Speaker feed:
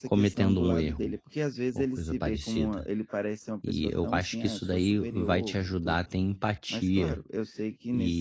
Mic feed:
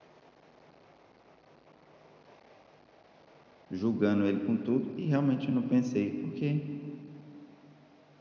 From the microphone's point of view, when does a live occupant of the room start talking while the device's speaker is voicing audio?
4 s

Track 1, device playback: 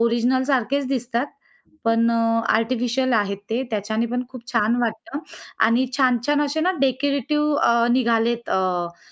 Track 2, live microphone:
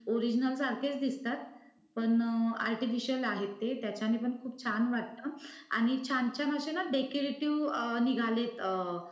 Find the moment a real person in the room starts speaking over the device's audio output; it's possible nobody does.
none

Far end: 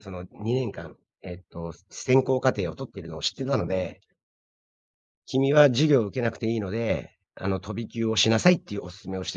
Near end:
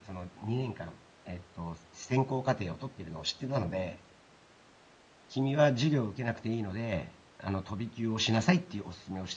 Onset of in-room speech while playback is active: none

